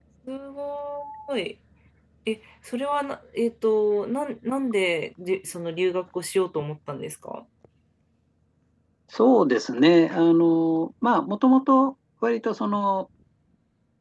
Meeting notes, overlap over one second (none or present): none